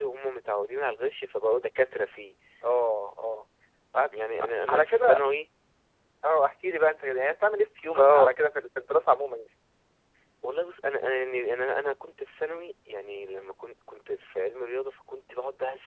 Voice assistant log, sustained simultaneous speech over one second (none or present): none